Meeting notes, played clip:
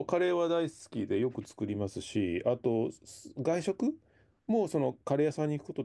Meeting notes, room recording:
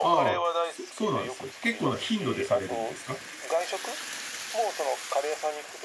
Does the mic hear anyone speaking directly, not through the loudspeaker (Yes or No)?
Yes